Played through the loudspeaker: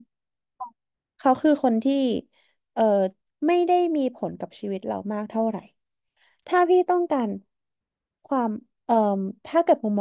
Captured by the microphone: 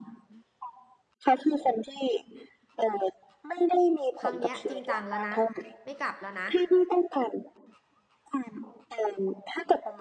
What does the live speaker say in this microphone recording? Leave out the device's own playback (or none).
ครั้งเนี้ยจริงจังแล้วนะไม่กลับแล้วนะ